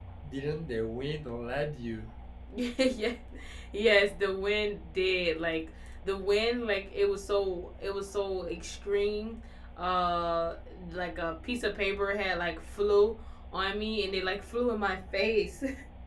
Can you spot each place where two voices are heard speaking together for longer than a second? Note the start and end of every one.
none

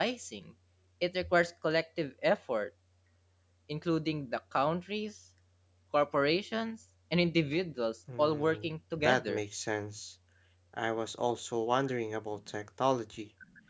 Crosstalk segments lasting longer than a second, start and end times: 8.2-9.4

